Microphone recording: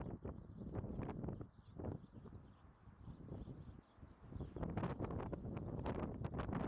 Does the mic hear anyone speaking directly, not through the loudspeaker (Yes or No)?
No